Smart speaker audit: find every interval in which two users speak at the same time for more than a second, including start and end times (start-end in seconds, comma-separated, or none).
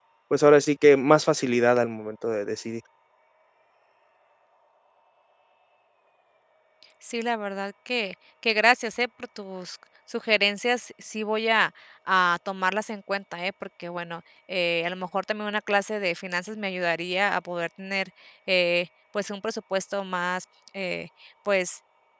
none